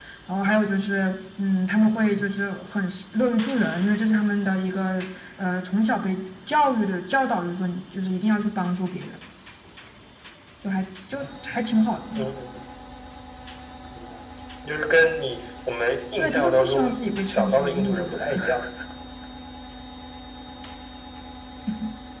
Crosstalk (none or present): present